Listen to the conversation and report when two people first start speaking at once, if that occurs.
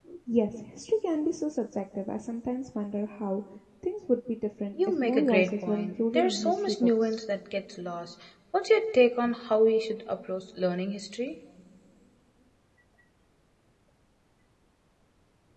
4.7 s

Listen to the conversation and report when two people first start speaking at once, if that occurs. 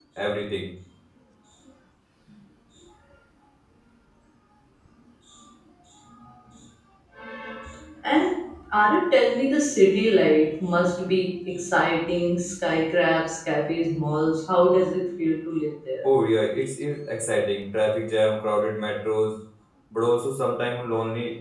none

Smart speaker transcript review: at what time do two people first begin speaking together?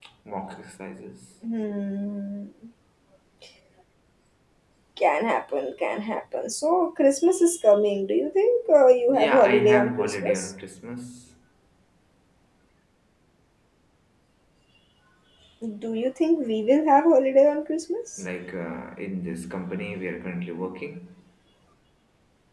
9.1 s

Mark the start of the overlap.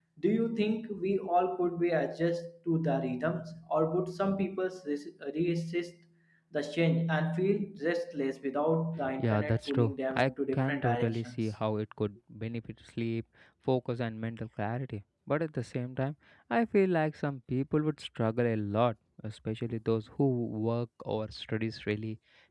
9.0 s

